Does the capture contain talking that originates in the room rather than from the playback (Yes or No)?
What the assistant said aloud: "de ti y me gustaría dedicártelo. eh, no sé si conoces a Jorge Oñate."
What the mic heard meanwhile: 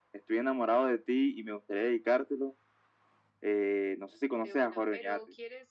Yes